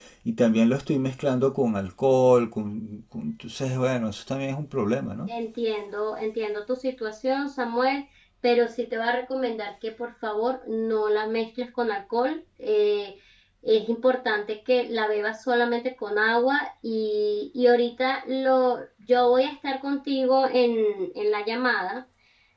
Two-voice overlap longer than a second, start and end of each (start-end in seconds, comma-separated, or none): none